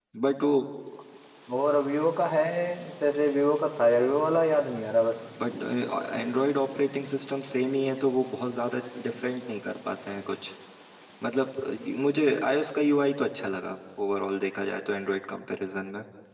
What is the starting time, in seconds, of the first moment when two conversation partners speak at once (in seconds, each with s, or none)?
none